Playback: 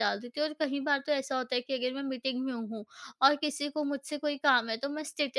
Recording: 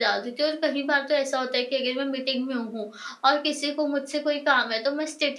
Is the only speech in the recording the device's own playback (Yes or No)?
Yes